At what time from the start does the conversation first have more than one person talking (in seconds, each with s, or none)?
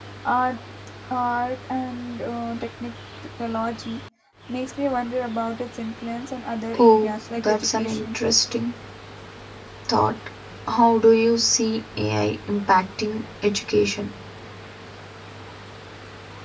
6.7 s